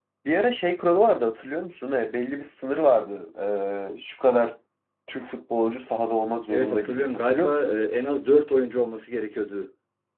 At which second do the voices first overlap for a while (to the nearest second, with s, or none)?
6 s